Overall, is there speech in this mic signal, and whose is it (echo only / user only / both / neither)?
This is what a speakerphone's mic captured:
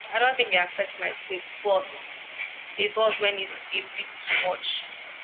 echo only